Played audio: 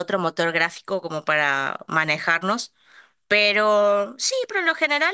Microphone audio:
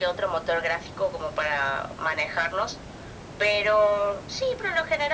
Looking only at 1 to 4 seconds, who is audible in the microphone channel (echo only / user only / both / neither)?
echo only